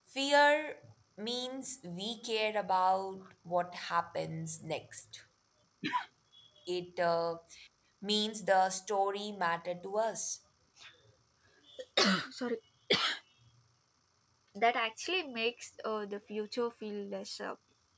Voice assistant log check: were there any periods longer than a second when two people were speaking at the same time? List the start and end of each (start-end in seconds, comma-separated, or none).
none